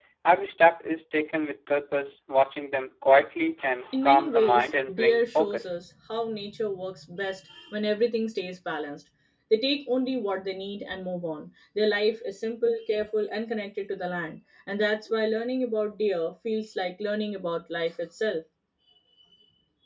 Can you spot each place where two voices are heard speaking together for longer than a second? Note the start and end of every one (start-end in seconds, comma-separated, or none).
4.0-5.7